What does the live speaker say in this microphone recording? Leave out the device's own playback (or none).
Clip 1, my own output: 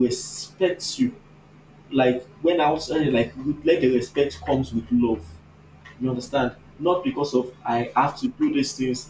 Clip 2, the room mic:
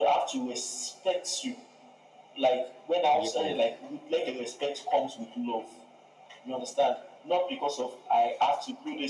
yes